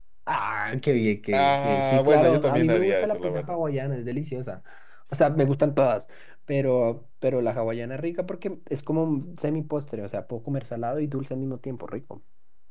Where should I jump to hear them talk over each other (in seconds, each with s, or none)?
1.3 s